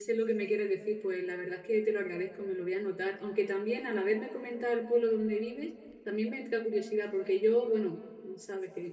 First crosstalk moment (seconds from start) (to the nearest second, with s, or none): none